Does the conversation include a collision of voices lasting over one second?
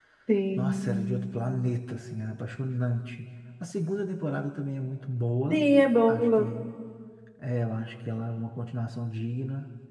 No

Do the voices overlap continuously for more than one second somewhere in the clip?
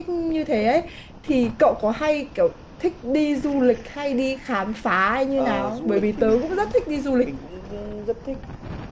Yes, from 5.4 s

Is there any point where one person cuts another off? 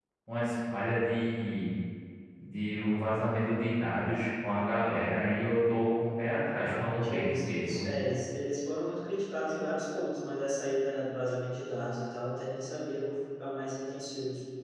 Yes, from 6.6 s

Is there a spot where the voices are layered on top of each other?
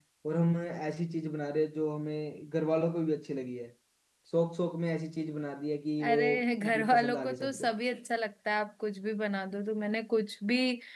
Yes, from 6.0 s

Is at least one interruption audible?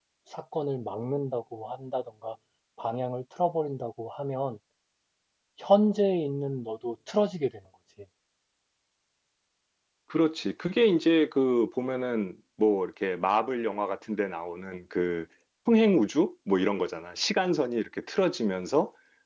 No

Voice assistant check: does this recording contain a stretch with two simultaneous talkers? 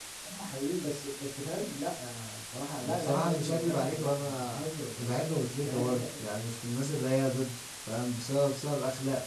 Yes, from 2.8 s

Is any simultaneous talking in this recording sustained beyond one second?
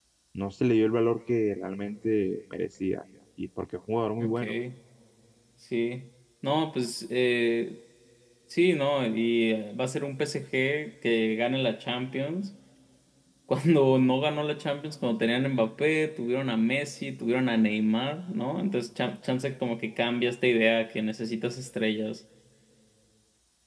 No

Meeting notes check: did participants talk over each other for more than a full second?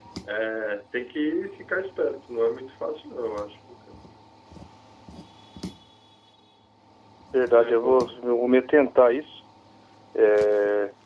No

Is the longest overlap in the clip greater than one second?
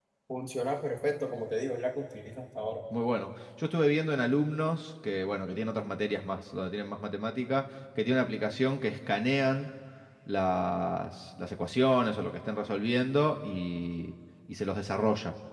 No

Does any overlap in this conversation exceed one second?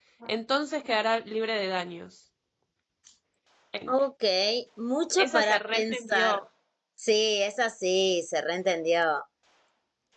Yes, from 5.2 s

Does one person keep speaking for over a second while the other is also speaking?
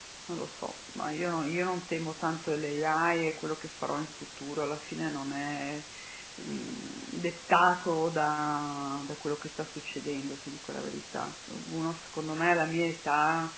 No

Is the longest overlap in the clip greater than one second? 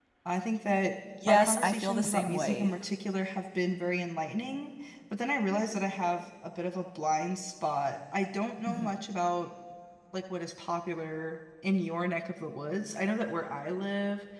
Yes, from 1.2 s

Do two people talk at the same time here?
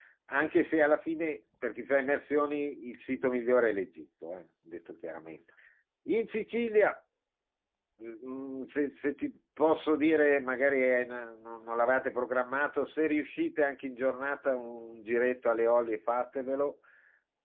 No

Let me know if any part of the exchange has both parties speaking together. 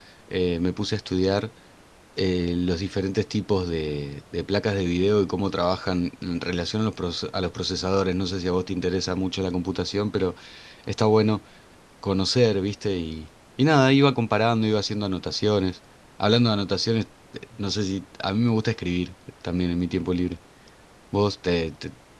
No

